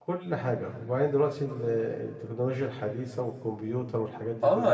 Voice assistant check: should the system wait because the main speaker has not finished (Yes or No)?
No